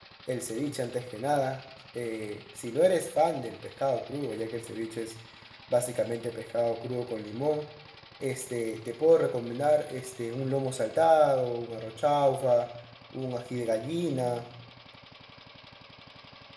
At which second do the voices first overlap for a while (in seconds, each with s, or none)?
none